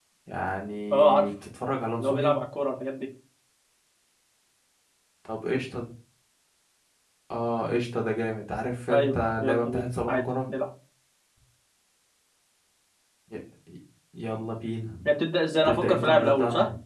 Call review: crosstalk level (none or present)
present